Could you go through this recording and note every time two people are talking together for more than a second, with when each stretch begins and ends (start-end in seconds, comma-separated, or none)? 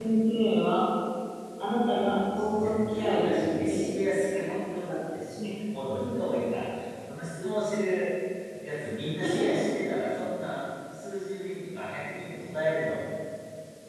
2.0-3.8